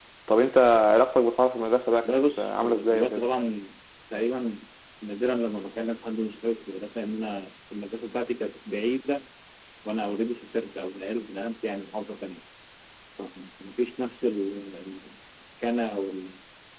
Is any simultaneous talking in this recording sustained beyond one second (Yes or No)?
Yes